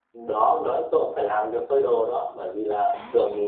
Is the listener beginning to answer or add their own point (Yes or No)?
No